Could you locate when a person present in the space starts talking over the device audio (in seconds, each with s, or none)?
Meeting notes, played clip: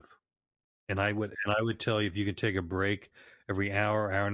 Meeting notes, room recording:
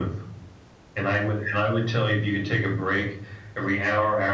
none